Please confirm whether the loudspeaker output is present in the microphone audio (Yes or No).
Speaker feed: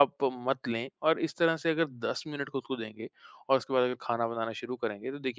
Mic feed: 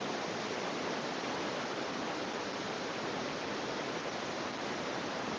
No